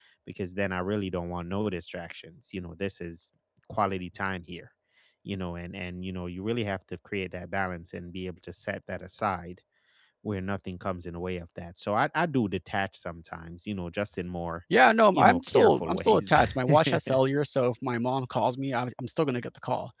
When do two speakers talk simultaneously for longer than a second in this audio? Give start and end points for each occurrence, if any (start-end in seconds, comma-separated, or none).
15.1-17.2